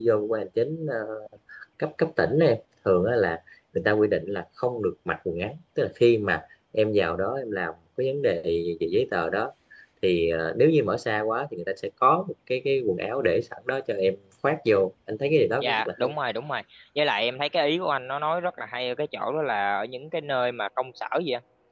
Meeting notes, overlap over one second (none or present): none